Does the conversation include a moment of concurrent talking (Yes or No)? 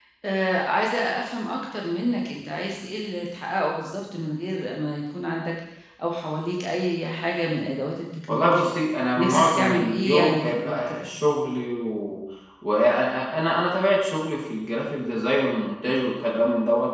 Yes